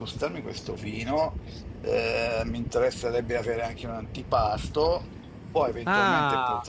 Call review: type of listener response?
taking over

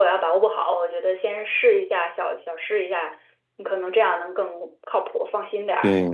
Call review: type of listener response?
taking over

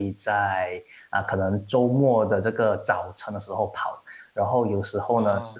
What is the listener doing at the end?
listening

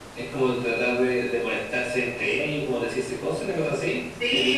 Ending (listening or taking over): taking over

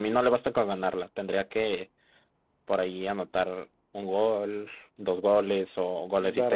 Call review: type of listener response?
taking over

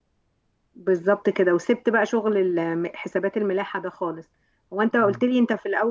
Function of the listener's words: listening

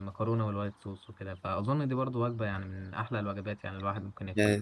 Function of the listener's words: taking over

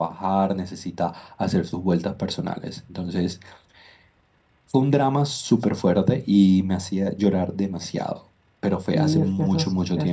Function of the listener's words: taking over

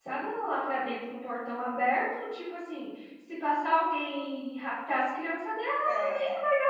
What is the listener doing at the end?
listening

